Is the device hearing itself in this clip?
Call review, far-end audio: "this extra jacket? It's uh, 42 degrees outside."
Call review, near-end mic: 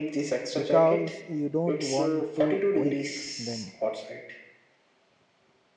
Yes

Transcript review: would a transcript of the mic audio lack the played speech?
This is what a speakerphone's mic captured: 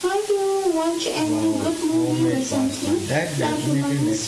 No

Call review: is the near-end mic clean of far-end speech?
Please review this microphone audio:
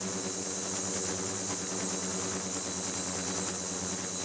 Yes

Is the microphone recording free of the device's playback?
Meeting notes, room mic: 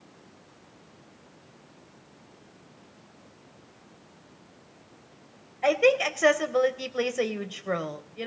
Yes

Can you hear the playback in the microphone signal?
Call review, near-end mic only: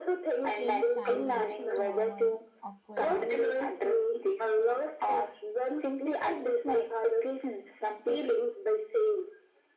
Yes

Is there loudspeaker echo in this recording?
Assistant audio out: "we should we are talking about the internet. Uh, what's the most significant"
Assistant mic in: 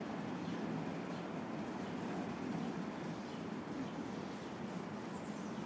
No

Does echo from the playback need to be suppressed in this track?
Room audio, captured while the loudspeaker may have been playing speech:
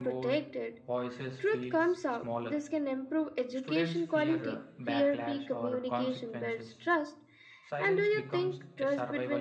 Yes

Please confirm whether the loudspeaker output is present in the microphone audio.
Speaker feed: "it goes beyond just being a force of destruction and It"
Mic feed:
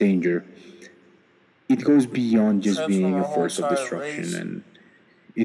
Yes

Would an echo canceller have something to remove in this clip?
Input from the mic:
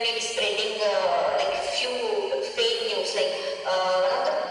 Yes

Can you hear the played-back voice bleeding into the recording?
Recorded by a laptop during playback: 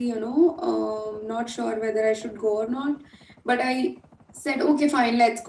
Yes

